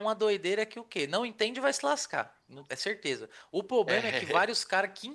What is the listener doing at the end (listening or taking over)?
listening